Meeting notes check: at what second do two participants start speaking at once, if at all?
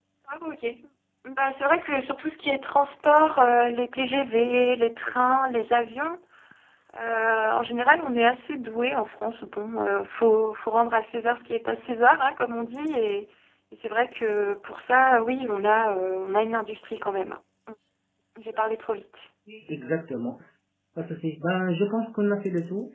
none

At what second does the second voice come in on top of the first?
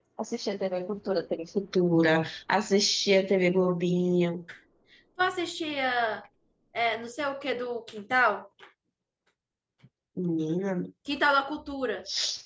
none

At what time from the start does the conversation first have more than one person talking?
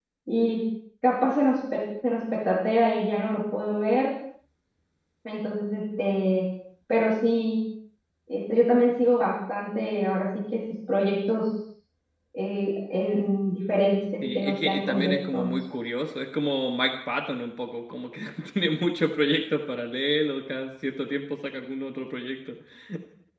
14.2 s

